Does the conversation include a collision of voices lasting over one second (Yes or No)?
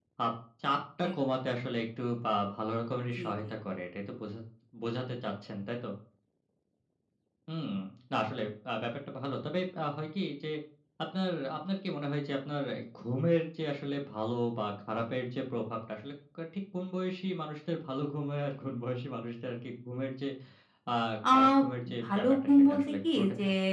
Yes